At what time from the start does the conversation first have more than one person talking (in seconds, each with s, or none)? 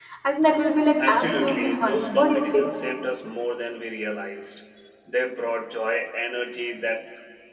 1.1 s